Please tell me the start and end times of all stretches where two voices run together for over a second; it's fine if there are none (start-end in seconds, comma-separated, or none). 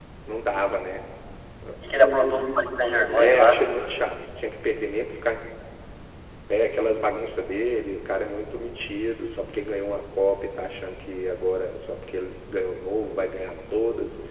none